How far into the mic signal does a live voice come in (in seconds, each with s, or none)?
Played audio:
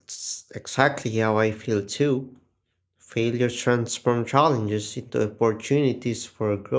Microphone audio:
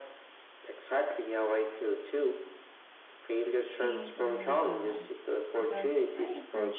3.8 s